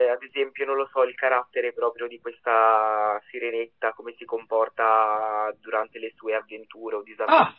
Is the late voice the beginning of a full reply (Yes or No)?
No